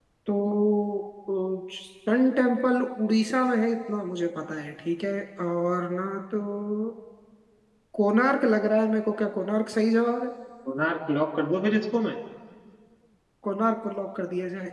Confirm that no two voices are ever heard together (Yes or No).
Yes